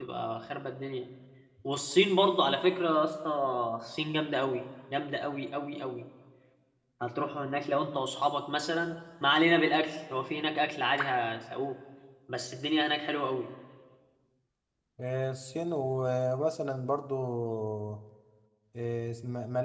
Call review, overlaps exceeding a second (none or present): none